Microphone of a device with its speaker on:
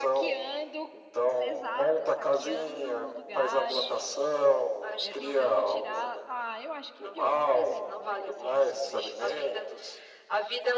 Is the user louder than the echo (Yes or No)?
No